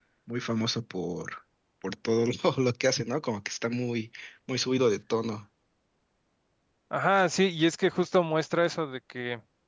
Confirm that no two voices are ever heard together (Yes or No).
Yes